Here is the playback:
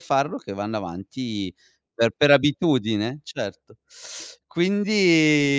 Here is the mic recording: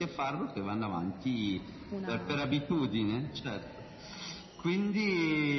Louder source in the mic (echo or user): echo